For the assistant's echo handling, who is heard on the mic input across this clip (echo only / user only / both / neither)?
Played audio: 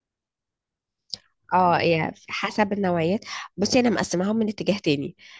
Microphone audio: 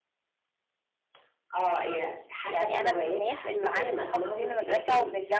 both